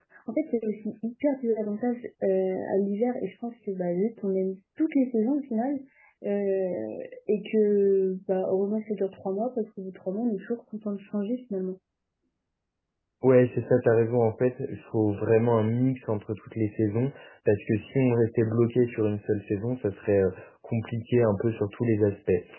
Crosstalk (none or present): none